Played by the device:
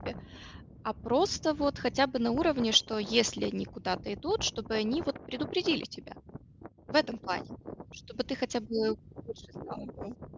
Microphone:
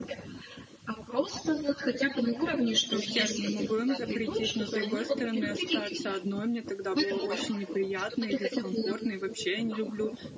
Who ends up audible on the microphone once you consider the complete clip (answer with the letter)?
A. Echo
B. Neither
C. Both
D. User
C